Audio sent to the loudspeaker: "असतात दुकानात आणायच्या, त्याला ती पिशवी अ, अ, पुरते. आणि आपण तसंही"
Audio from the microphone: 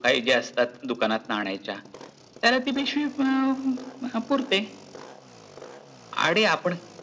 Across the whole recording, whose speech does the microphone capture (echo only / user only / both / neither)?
echo only